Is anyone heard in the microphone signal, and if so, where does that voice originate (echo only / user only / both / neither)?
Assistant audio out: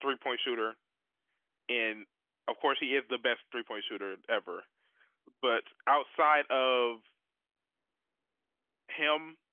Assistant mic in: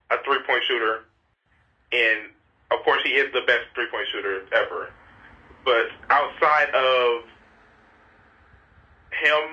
echo only